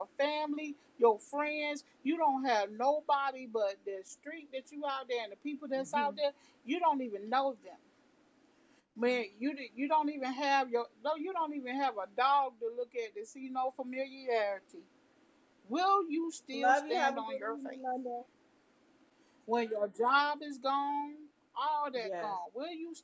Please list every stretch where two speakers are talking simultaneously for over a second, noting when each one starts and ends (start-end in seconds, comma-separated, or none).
16.5-17.8